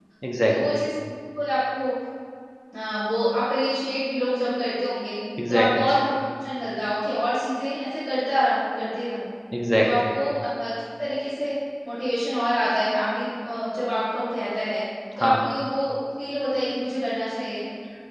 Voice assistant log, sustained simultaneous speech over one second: none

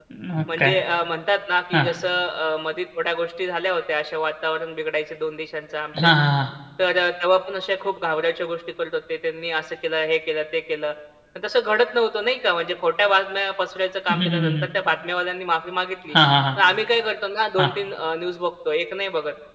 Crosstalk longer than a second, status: none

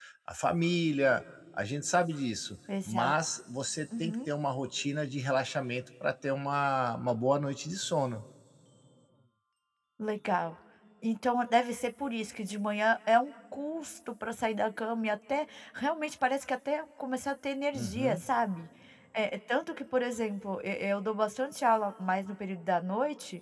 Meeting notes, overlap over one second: none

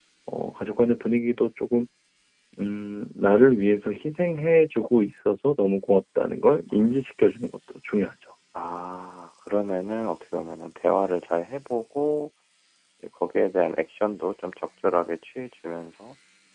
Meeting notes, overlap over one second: none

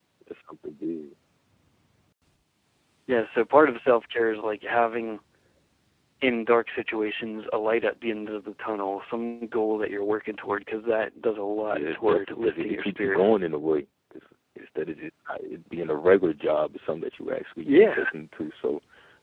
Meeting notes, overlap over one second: present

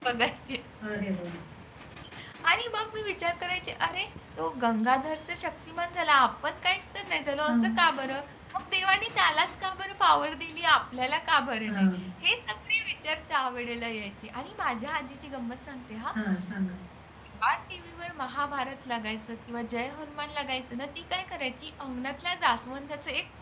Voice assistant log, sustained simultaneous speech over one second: none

